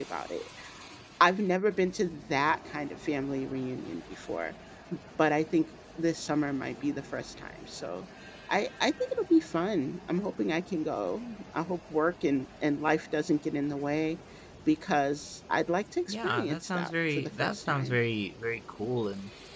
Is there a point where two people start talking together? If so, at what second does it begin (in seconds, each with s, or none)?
16.1 s